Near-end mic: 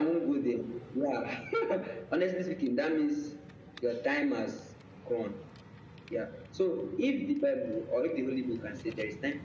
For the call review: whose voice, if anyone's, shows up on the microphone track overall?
echo only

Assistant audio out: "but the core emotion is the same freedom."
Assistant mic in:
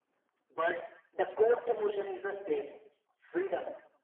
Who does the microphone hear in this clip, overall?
echo only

